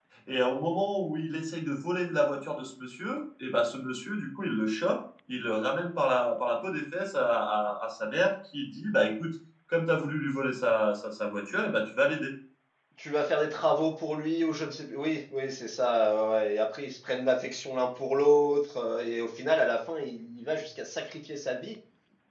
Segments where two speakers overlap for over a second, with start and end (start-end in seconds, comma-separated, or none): none